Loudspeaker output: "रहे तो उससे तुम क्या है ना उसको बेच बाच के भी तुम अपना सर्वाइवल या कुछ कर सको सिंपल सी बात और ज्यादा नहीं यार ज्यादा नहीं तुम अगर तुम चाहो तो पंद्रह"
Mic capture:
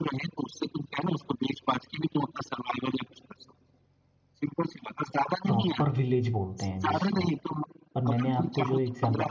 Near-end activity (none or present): present